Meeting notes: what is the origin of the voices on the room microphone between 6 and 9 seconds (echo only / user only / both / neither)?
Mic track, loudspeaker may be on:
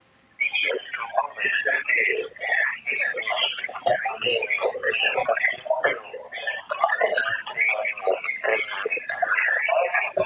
echo only